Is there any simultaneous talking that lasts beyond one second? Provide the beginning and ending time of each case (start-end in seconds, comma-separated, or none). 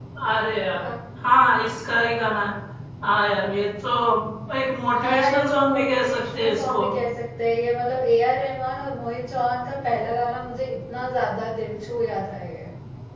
5.0-6.8